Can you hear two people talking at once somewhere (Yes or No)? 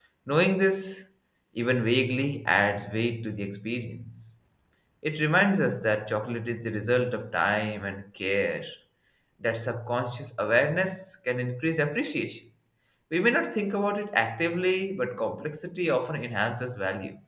No